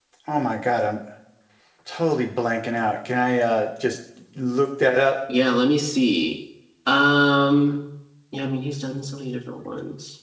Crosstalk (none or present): none